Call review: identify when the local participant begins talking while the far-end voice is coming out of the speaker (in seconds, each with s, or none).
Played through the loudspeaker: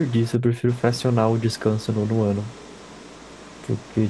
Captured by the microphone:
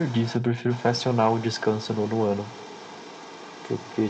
none